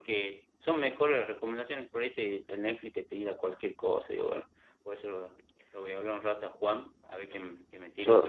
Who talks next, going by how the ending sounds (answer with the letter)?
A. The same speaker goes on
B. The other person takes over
A